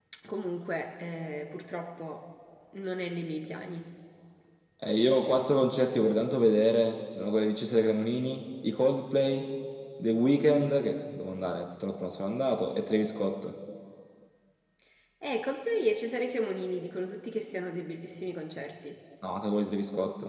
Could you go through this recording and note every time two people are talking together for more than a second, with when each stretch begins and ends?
none

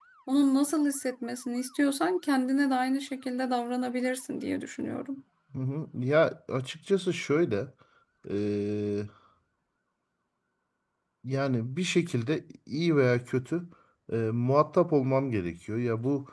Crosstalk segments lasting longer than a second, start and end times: none

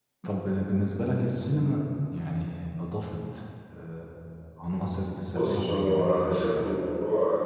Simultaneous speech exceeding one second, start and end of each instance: 5.2-6.7

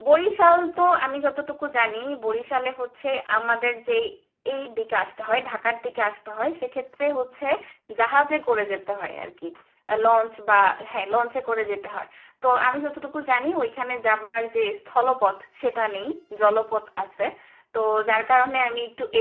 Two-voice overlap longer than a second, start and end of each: none

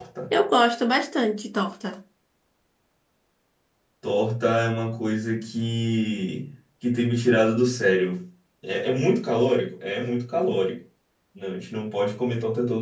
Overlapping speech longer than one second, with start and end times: none

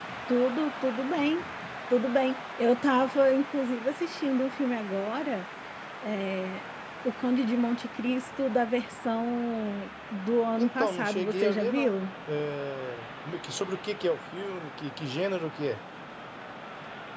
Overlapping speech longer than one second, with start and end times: 10.6-11.9

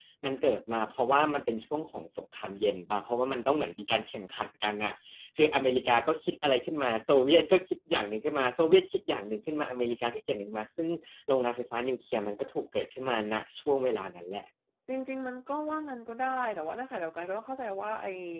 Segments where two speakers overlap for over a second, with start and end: none

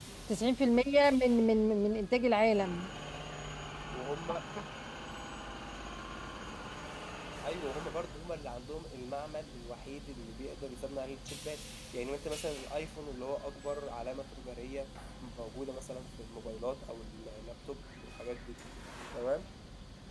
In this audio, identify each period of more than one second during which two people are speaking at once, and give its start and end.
none

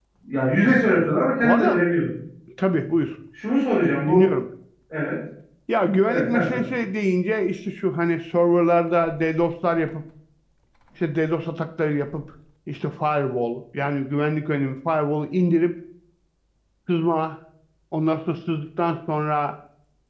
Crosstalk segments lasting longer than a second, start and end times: none

